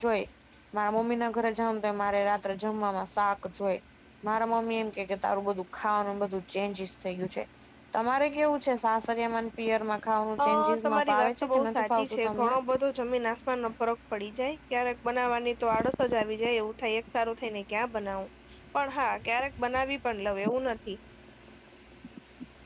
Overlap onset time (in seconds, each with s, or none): 10.4 s